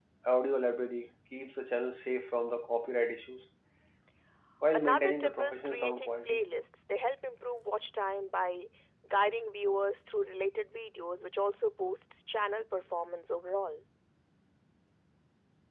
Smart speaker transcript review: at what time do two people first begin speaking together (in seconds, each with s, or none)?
4.7 s